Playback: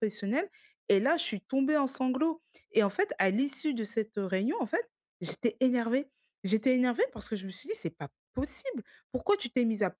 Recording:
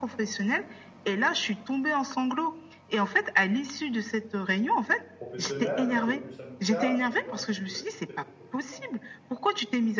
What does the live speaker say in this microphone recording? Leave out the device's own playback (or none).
professionnel, un peu plus amical? C'est des gens que tu avec lesquels tu peux t'entendre